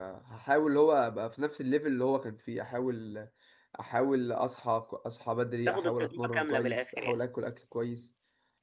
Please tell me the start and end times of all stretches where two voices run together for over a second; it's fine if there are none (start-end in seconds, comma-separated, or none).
5.7-7.2